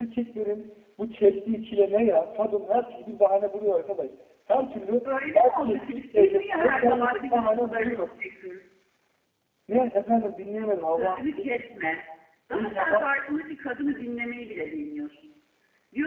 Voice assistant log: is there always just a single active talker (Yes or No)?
No